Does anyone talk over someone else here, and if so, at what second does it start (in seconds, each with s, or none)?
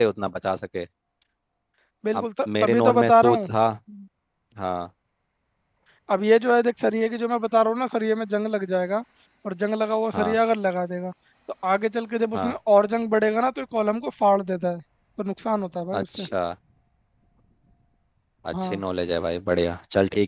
2.1 s